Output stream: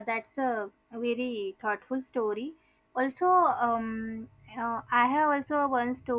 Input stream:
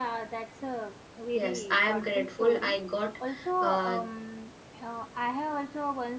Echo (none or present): present